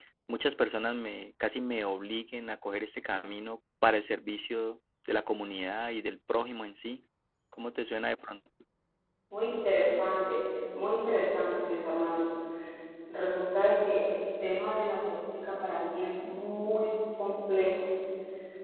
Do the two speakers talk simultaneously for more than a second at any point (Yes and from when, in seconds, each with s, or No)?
No